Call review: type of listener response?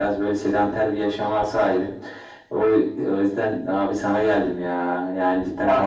taking over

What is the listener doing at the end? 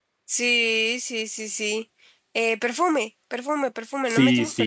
taking over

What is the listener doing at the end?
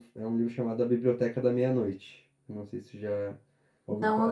taking over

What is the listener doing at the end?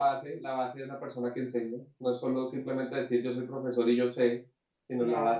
listening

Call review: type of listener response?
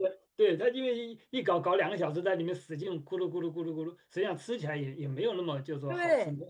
taking over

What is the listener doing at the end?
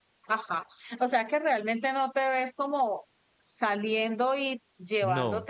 listening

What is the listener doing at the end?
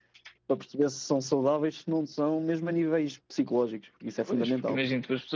taking over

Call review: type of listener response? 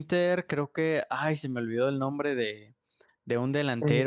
listening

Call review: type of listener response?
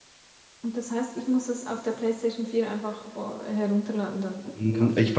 taking over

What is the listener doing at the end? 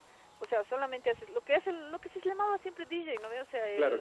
listening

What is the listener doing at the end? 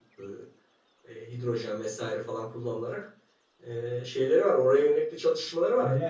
taking over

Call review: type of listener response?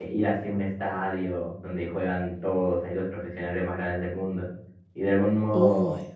listening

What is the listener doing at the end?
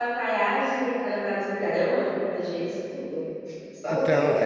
taking over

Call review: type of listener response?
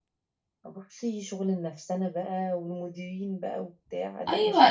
taking over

